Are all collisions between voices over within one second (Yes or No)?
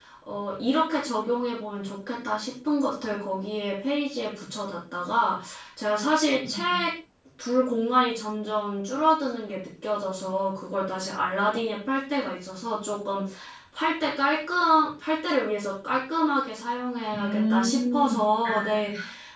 No